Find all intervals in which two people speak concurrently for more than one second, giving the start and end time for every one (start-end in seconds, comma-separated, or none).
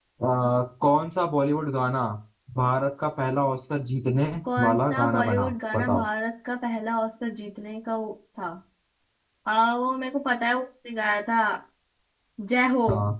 4.6-6.0